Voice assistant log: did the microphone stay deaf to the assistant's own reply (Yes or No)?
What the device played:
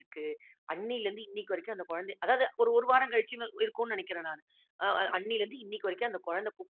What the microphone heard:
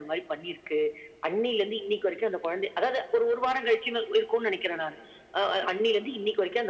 No